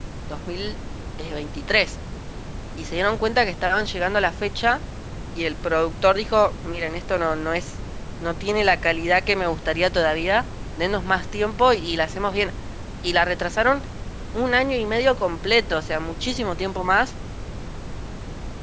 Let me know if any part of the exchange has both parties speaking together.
No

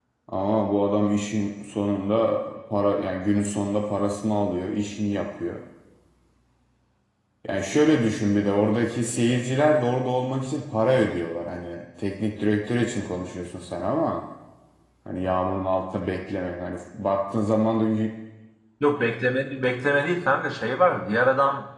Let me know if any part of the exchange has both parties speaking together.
No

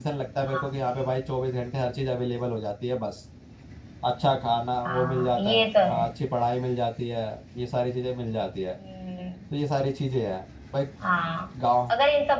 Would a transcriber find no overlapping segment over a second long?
No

